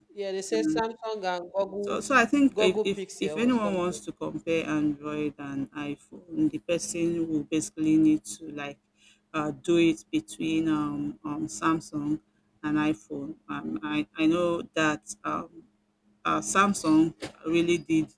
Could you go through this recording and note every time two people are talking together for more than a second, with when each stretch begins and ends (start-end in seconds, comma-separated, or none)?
2.6-3.8